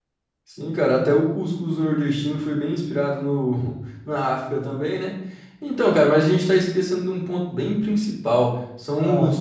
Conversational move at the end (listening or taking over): listening